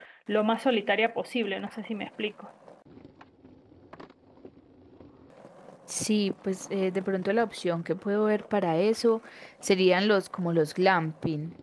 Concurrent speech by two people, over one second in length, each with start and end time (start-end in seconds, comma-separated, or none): none